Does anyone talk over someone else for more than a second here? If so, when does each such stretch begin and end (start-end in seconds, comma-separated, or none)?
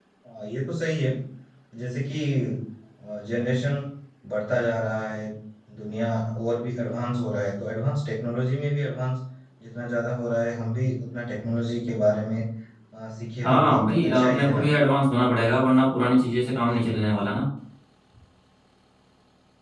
13.4-14.7